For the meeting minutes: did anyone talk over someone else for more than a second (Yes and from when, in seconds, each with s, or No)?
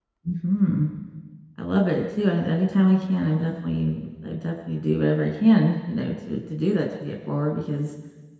No